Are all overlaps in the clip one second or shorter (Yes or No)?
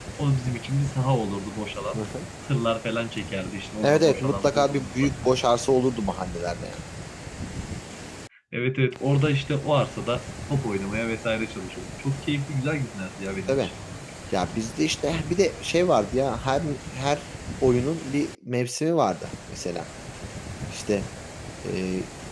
No